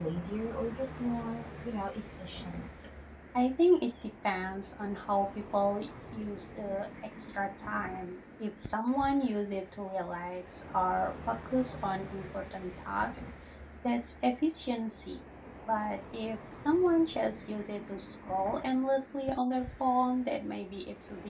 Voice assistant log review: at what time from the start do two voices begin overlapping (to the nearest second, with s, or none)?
none